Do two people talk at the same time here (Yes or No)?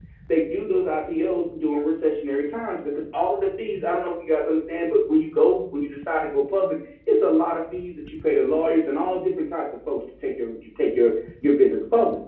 No